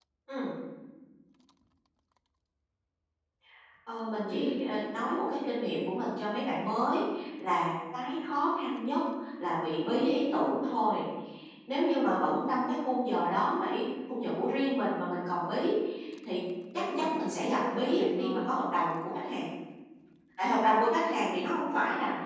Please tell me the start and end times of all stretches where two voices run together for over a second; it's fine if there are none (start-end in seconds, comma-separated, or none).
16.8-18.5